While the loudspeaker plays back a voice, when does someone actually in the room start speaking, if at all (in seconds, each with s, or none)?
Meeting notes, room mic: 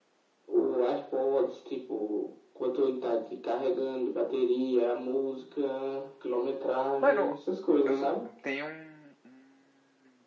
7.0 s